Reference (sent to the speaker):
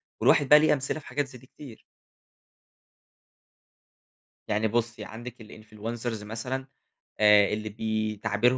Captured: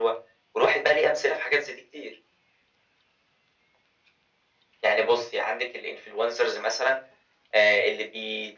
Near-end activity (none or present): none